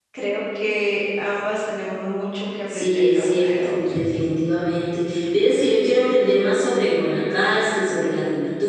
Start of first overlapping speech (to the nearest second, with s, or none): 3 s